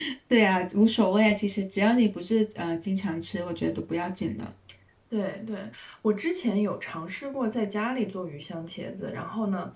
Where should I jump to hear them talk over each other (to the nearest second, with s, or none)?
none